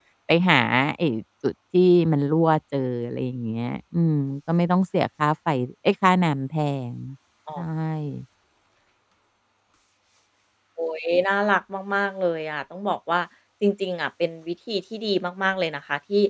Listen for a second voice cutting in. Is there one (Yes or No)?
No